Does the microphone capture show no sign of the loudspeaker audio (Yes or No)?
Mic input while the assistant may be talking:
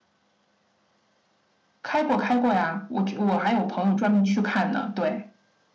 No